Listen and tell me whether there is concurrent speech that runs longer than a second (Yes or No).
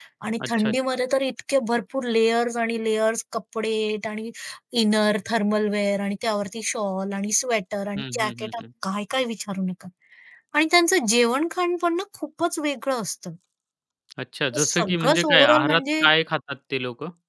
Yes